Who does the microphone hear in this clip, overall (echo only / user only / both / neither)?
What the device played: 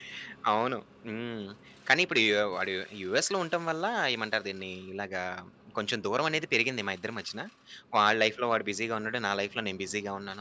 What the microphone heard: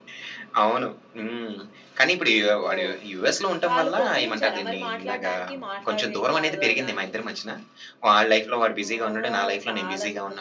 both